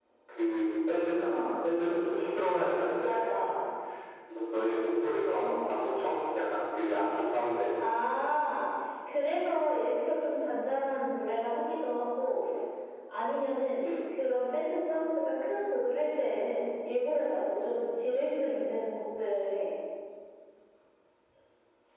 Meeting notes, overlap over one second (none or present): none